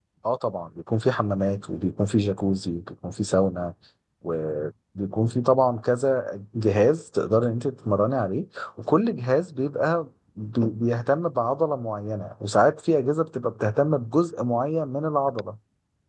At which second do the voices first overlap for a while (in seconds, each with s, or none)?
none